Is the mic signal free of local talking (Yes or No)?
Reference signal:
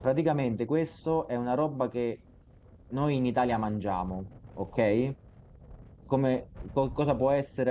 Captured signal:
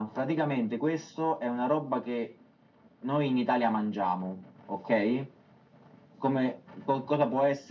Yes